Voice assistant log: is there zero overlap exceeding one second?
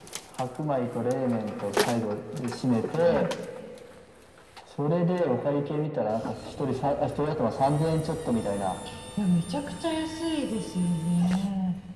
Yes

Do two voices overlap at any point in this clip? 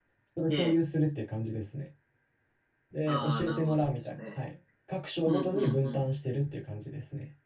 Yes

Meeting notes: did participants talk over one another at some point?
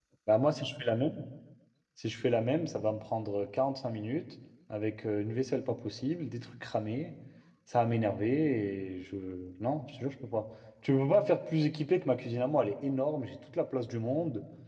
No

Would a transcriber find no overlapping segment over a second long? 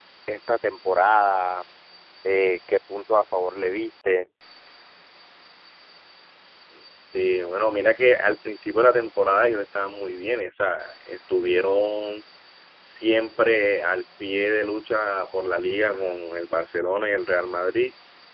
Yes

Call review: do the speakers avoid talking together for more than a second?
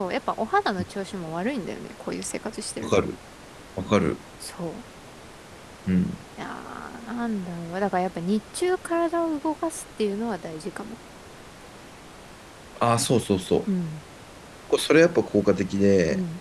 Yes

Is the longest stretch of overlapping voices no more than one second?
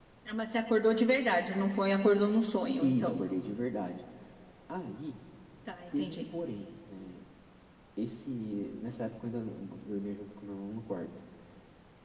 Yes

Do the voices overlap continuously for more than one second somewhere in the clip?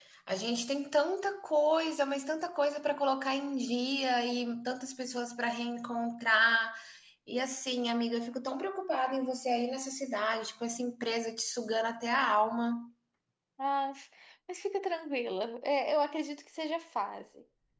No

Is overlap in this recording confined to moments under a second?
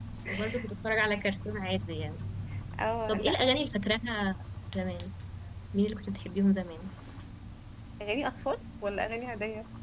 Yes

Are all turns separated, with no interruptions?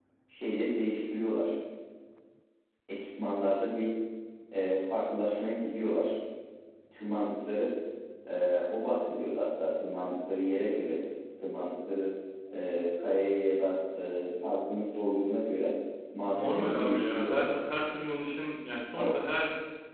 No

